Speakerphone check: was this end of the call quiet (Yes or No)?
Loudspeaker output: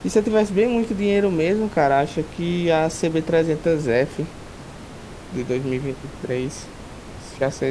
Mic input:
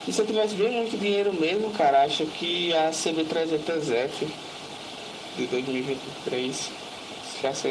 Yes